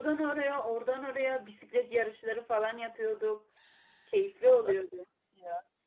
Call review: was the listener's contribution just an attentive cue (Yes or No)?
No